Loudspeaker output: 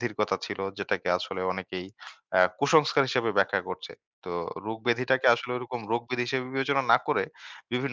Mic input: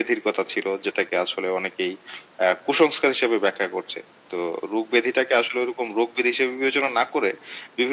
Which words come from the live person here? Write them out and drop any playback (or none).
none